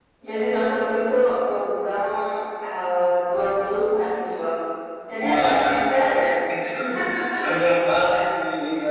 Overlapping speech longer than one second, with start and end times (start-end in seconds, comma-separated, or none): none